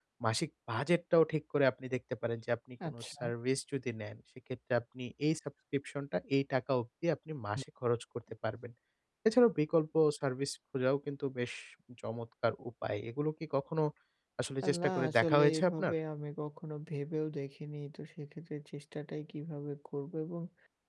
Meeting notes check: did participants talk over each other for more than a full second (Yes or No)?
Yes